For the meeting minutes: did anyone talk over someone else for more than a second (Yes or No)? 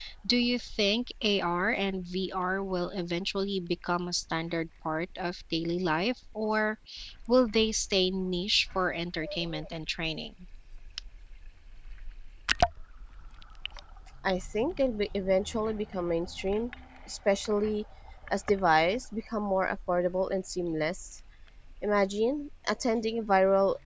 No